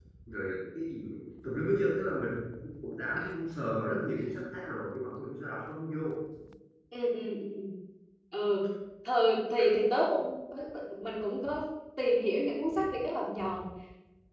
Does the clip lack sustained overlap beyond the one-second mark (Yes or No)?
Yes